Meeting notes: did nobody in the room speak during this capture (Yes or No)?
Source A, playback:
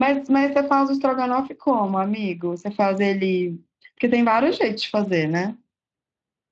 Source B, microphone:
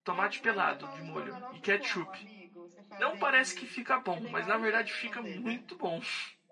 No